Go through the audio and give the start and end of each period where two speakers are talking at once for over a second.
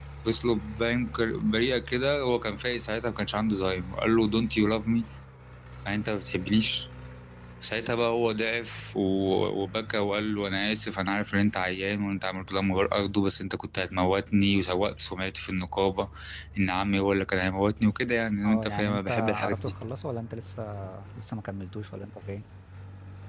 18.4-19.7

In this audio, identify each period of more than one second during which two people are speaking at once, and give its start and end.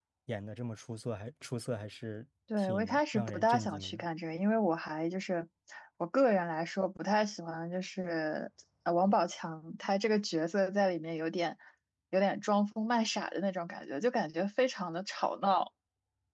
2.6-4.0

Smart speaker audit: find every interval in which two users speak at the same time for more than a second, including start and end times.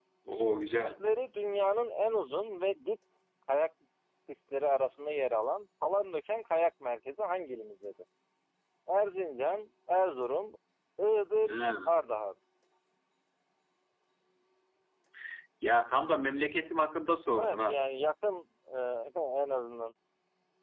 none

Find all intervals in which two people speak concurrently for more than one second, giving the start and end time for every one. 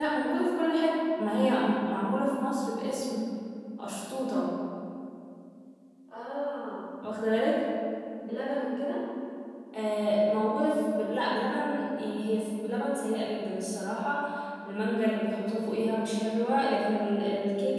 none

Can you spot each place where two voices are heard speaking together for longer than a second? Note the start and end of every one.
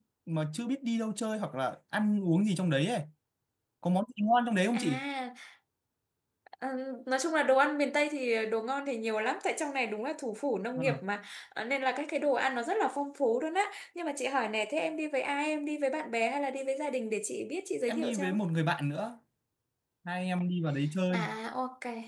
none

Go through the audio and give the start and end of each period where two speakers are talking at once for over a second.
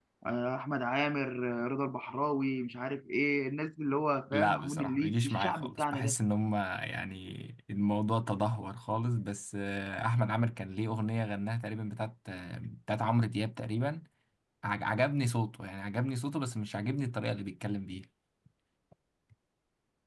4.3-6.2

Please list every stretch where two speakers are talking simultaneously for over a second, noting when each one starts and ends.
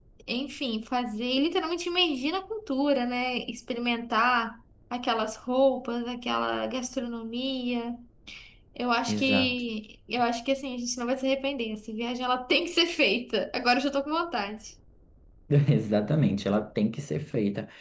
none

